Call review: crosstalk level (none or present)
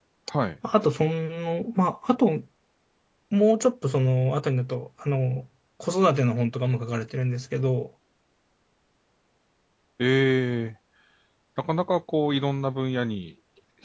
none